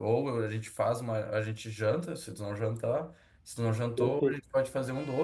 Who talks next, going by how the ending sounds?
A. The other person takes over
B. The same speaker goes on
B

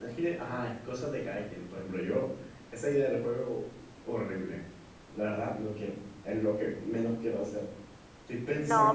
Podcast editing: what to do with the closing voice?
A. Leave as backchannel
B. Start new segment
B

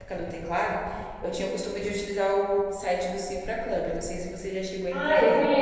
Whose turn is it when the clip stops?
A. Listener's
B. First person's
A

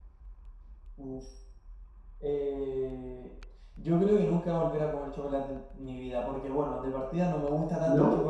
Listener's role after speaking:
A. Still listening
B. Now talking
A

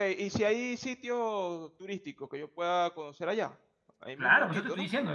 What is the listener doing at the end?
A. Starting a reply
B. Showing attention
A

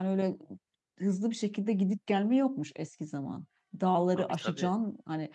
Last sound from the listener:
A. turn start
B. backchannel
B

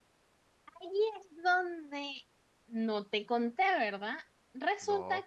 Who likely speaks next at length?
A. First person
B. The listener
A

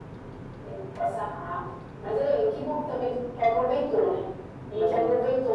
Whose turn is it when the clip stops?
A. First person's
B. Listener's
A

